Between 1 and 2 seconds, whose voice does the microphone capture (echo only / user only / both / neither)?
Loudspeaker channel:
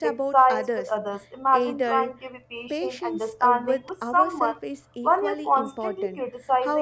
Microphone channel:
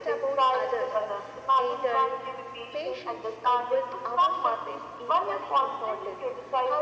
echo only